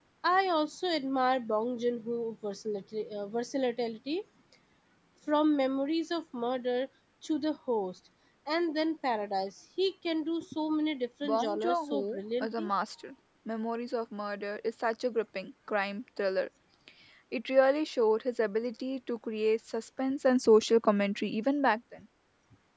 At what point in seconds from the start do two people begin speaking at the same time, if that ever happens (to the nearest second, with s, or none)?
11 s